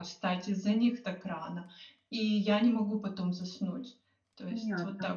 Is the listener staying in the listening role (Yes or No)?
No